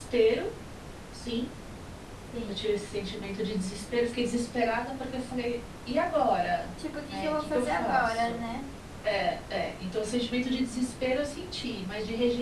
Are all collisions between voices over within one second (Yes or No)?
No